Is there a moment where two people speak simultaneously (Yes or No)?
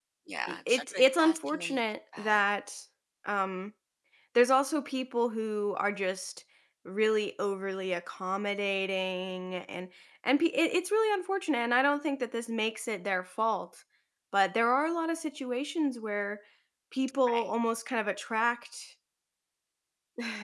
Yes